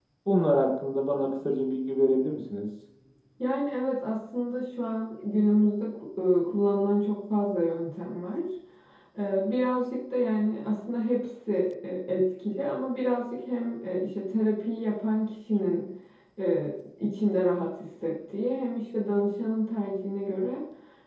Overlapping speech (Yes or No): No